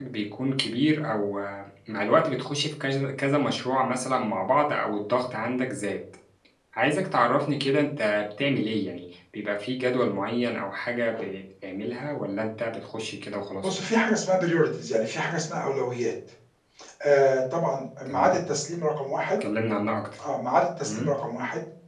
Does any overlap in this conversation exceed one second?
No

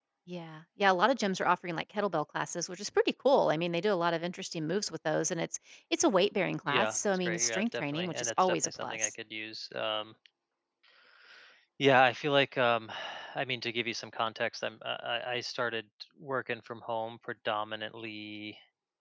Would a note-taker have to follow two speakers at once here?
Yes, from 6.6 s

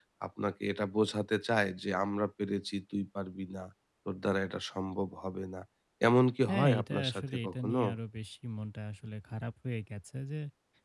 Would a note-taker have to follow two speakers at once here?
Yes, from 6.5 s

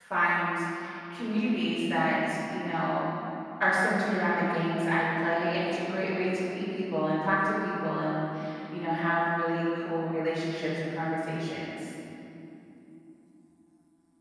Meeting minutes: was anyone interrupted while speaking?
No

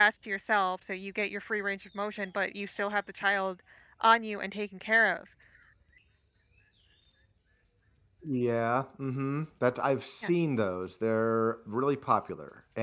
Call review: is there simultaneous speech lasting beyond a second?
No

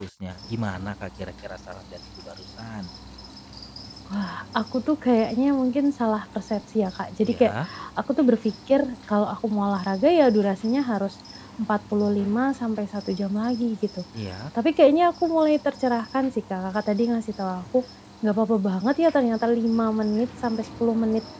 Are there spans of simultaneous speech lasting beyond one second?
No

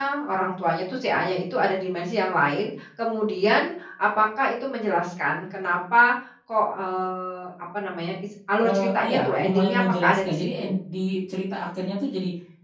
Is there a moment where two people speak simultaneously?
Yes, from 8.6 s

